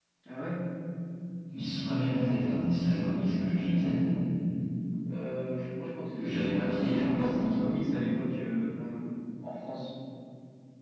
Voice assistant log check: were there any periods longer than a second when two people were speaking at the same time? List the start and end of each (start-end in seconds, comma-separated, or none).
6.2-7.5